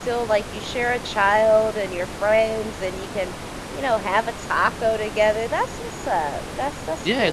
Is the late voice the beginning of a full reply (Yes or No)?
Yes